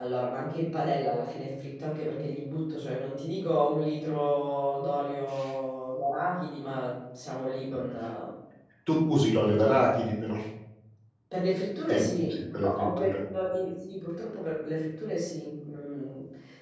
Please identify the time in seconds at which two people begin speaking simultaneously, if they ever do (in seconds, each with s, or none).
11.9 s